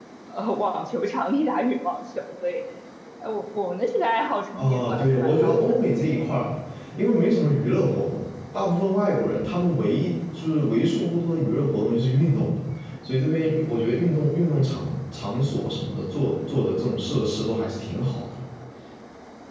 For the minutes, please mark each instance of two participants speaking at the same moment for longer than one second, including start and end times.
4.6-5.8

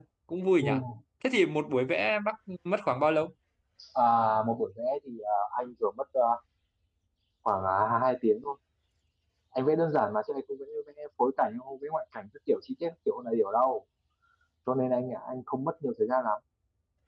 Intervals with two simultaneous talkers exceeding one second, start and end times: none

